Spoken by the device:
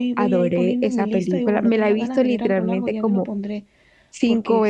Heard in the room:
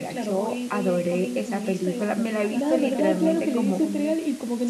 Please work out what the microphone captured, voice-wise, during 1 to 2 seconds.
echo only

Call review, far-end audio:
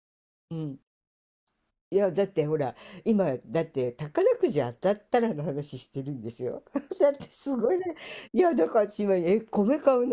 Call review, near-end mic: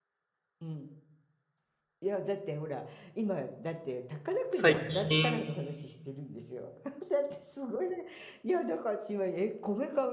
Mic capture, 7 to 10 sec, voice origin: echo only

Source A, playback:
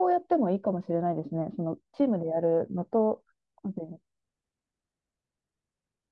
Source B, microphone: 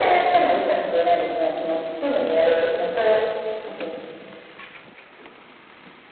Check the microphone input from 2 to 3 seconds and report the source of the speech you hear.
echo only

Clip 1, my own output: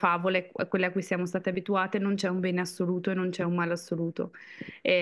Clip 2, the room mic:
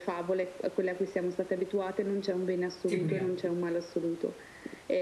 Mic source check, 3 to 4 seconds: both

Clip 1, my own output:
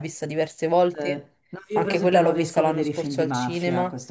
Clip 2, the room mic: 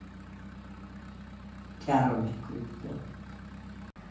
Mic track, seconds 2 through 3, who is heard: user only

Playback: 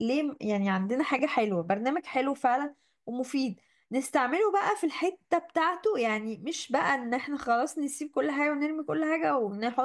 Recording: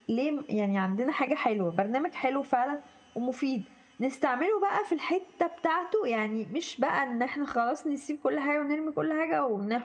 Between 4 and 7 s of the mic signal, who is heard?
echo only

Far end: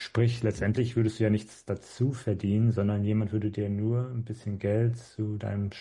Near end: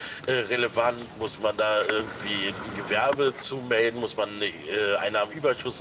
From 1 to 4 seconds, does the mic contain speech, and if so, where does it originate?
user only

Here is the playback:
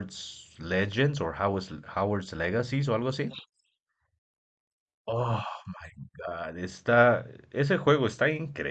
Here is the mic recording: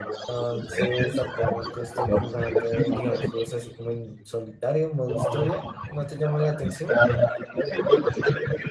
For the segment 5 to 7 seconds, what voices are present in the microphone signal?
both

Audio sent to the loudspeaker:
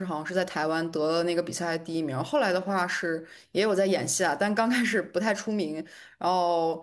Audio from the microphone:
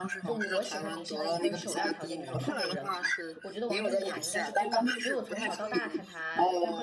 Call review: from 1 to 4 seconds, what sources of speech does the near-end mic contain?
both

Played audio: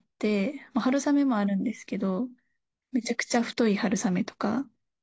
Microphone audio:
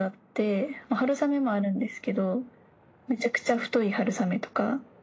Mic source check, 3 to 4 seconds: echo only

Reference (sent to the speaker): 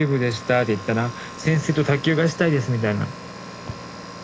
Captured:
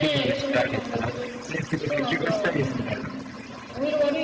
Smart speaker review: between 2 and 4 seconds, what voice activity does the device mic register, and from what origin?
both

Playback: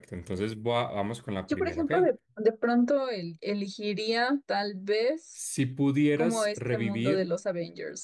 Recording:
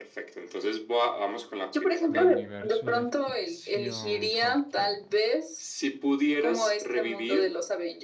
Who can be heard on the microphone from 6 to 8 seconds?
echo only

